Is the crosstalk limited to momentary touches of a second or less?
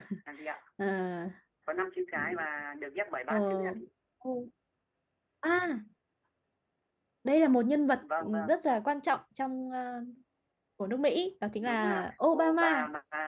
No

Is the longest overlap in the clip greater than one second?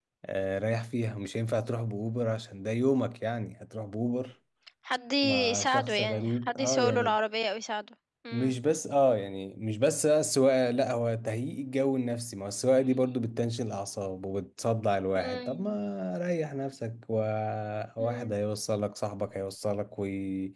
Yes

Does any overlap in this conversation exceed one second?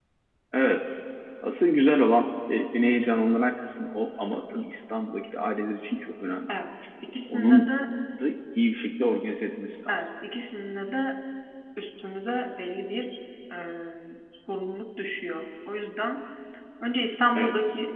No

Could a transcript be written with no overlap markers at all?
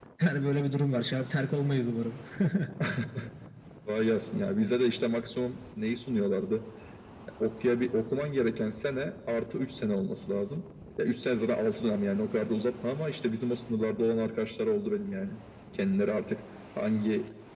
Yes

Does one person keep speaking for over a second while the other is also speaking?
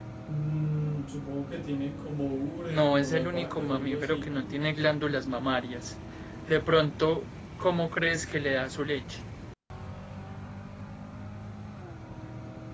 Yes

